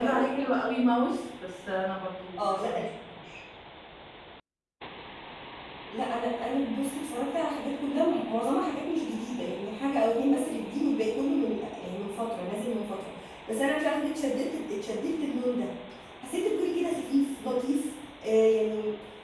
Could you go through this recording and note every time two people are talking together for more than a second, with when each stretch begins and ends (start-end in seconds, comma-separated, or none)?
none